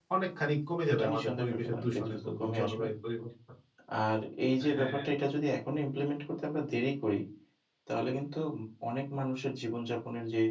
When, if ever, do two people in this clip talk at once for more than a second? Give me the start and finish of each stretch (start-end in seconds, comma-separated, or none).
0.9-2.9